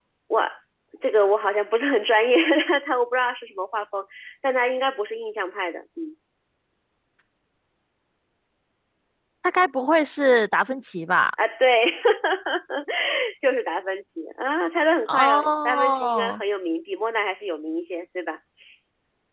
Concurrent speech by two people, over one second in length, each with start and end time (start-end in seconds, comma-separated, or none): 15.1-16.4